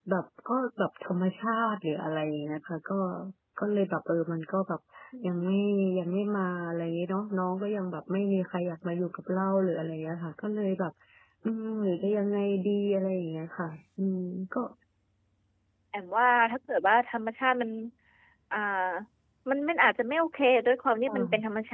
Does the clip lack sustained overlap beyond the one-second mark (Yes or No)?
Yes